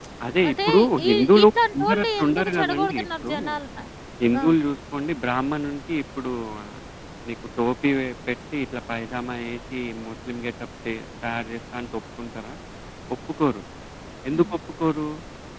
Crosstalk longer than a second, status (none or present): present